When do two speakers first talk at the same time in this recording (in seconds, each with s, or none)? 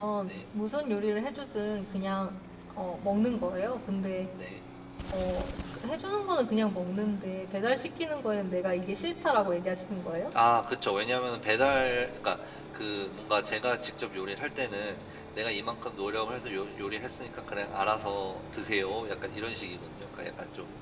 none